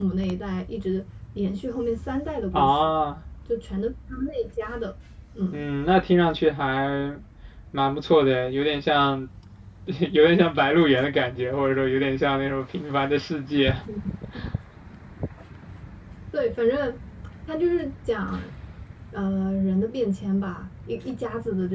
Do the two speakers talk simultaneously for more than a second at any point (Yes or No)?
No